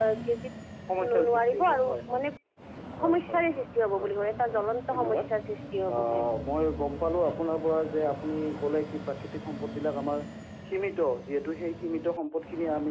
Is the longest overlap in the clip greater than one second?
Yes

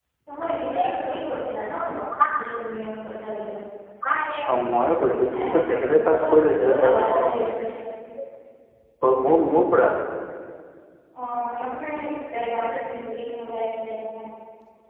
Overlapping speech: Yes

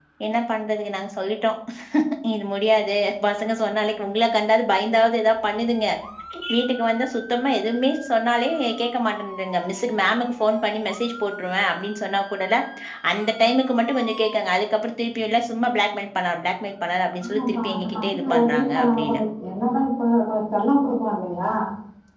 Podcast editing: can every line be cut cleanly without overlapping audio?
No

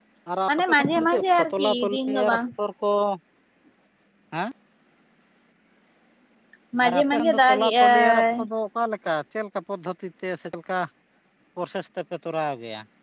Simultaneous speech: Yes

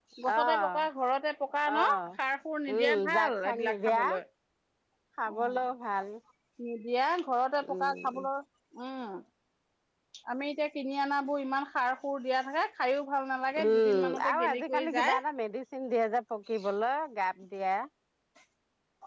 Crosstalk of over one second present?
Yes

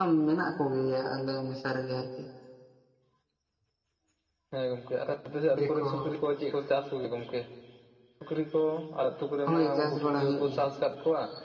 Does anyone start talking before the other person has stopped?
Yes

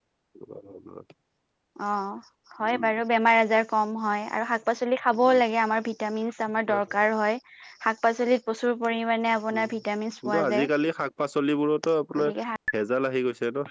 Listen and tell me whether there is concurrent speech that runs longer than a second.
No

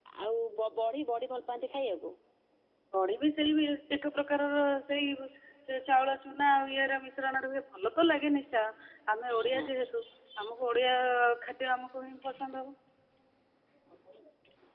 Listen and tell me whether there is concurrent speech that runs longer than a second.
No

